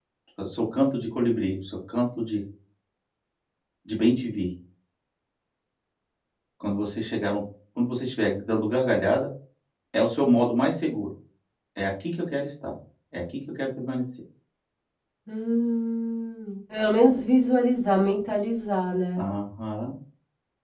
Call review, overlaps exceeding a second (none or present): none